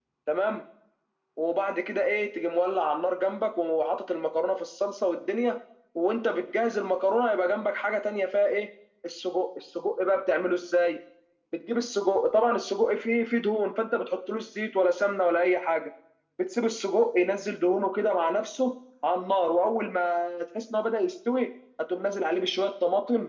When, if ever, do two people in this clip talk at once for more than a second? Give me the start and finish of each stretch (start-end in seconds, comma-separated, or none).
none